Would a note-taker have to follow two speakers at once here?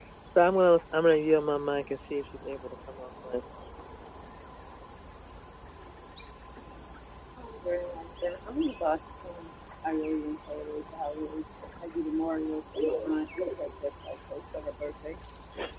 No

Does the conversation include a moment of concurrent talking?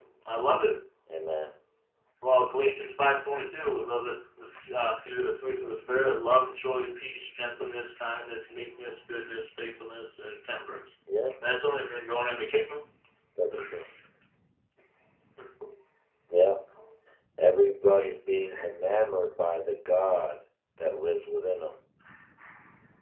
No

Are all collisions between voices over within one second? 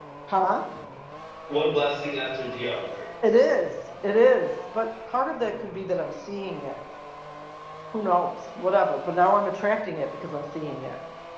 Yes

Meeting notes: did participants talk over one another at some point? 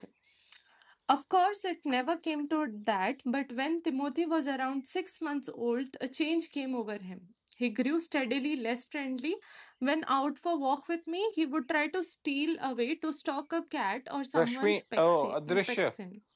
Yes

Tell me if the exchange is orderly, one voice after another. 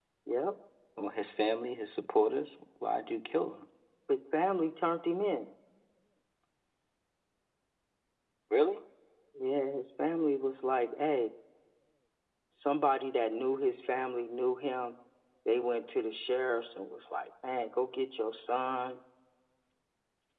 Yes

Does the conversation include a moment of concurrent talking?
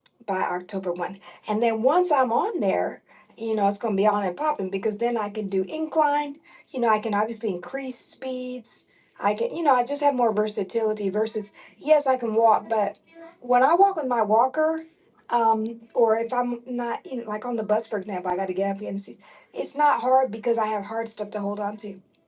No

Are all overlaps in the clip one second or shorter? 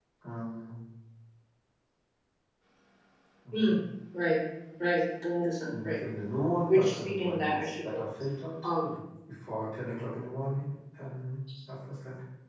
No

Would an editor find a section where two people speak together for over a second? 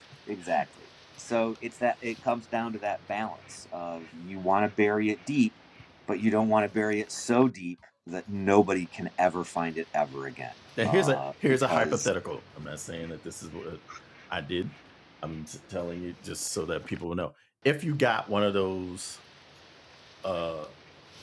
Yes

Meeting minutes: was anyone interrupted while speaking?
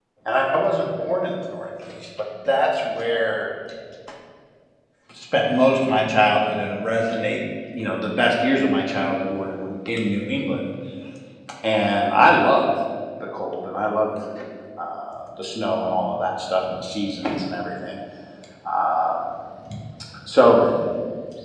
No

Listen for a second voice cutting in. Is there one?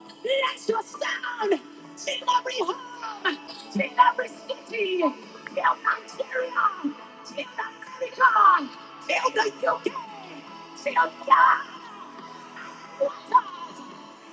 No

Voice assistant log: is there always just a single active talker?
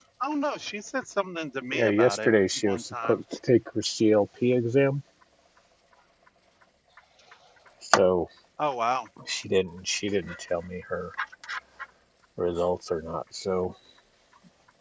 No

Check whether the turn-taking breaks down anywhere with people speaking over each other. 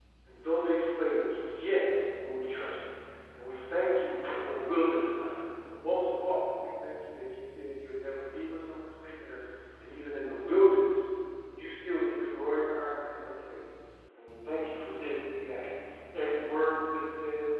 No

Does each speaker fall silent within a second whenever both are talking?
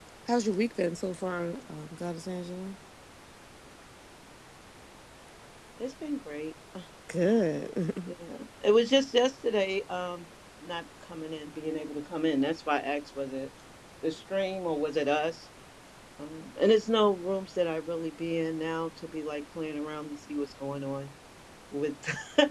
Yes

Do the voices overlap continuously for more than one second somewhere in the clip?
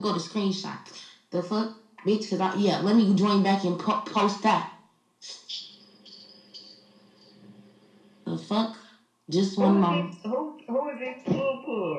No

